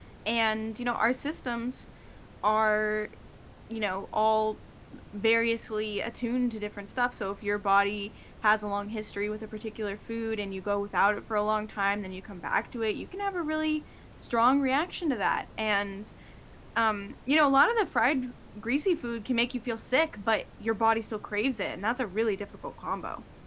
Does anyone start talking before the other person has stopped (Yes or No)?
No